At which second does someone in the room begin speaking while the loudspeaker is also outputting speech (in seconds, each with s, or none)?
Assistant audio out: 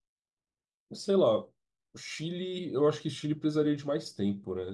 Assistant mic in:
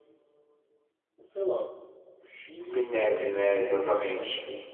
2.7 s